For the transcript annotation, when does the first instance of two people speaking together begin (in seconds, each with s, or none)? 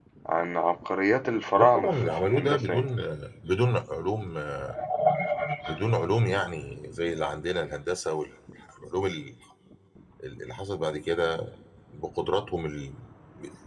1.6 s